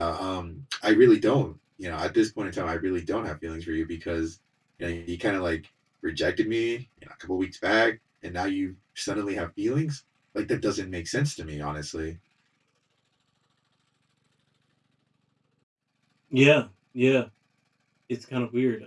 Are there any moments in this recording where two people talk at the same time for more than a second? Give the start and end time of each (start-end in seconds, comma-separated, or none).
none